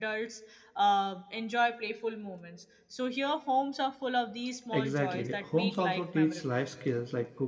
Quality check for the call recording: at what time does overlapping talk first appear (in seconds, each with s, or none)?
4.7 s